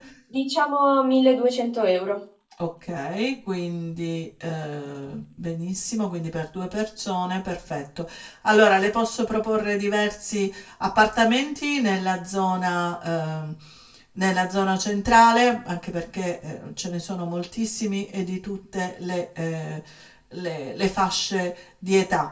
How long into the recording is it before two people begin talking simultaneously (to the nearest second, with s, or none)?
none